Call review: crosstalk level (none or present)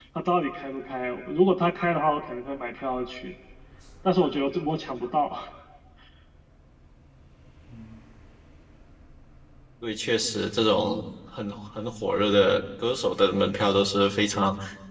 none